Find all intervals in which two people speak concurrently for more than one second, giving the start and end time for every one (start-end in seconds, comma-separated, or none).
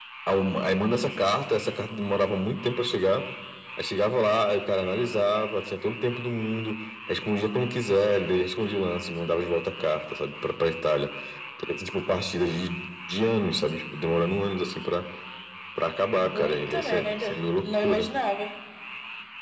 16.3-18.1